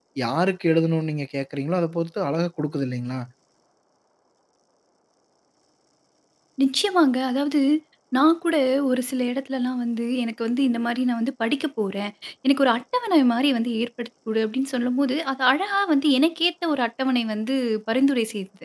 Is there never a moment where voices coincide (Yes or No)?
Yes